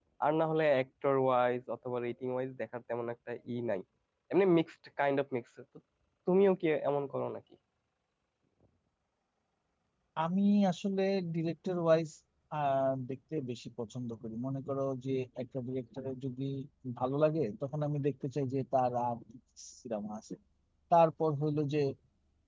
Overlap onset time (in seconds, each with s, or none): none